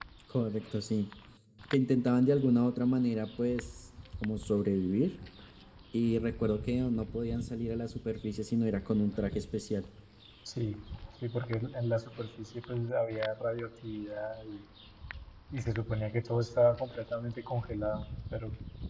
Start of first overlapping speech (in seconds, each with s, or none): none